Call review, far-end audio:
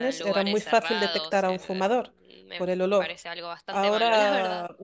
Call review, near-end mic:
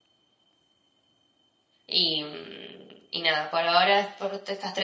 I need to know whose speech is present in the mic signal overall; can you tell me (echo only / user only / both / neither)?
user only